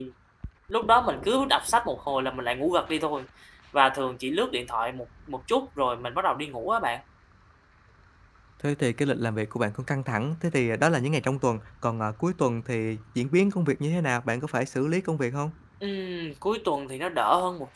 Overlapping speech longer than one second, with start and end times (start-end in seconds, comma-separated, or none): none